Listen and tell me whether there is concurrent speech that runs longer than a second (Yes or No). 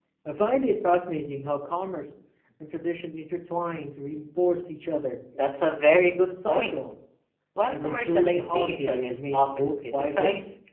Yes